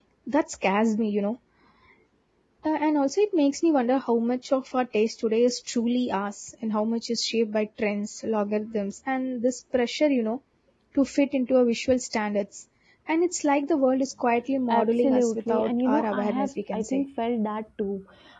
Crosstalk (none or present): present